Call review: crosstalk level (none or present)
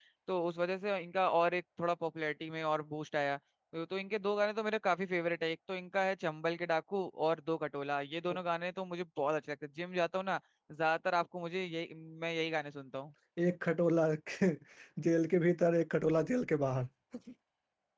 none